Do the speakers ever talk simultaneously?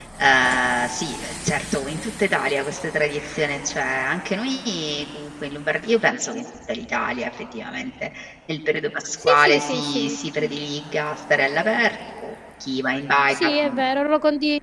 Yes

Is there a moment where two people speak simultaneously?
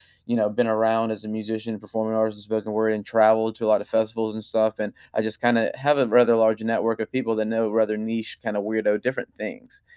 No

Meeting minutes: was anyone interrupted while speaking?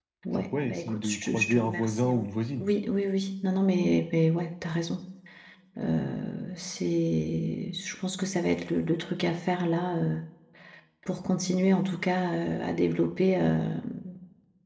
Yes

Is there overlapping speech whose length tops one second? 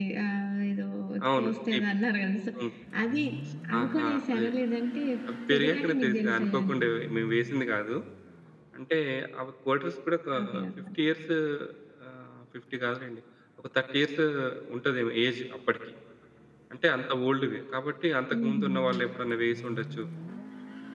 Yes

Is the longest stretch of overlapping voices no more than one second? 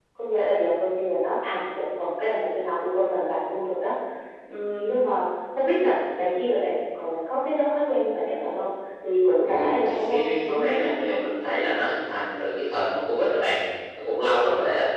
No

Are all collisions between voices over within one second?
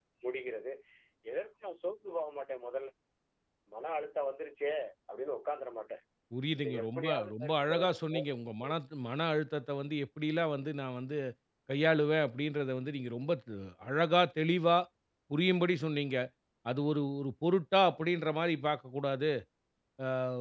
No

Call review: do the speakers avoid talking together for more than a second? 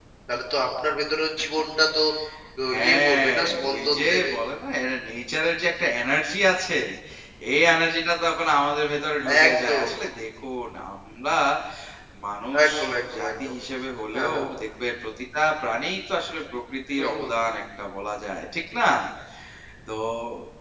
No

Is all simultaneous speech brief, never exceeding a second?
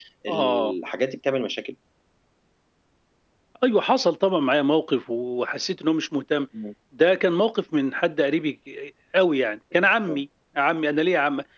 Yes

